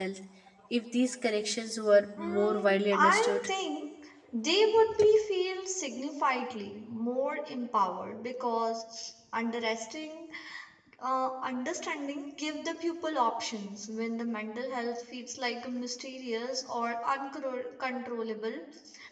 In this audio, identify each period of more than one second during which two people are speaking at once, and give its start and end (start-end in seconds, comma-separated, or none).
2.2-3.5